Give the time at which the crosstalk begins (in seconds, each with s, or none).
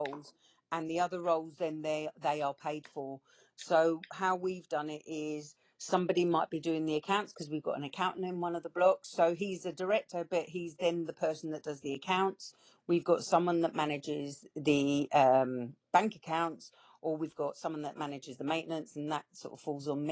none